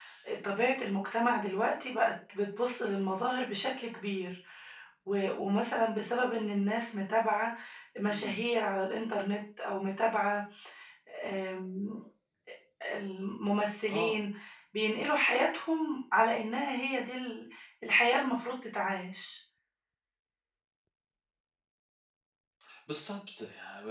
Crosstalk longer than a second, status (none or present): none